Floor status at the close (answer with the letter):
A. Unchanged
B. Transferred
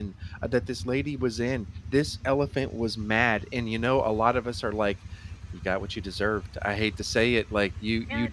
A